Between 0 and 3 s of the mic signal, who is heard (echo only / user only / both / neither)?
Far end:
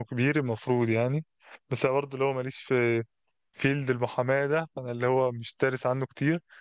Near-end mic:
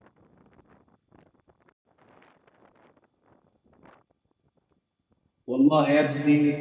neither